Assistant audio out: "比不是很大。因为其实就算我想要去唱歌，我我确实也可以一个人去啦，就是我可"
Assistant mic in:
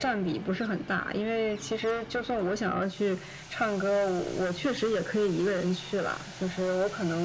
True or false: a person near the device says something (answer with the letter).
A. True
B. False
B